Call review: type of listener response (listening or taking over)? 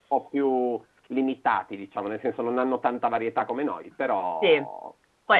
taking over